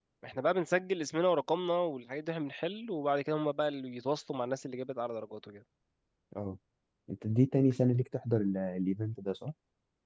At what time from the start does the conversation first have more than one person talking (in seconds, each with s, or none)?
none